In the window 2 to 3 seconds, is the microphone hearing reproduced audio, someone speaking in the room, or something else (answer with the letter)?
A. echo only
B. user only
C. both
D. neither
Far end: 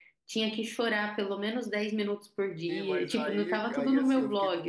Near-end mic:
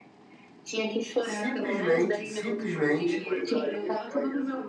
C